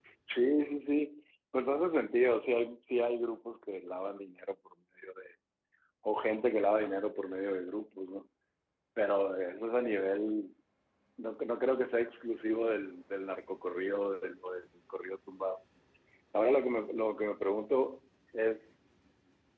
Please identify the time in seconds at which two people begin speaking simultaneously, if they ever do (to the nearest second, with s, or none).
none